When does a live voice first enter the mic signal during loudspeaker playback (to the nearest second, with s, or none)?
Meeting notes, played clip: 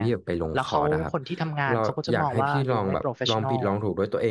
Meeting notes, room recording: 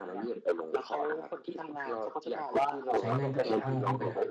3 s